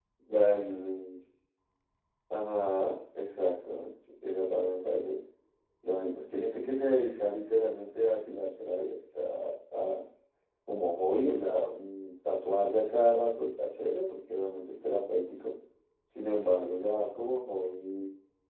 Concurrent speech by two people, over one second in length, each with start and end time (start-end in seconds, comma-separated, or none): none